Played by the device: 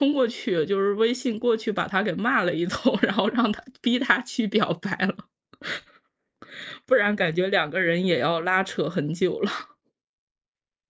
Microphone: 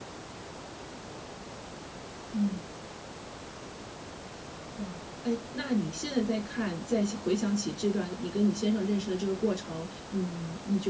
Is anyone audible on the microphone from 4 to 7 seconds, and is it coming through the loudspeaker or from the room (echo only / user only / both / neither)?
user only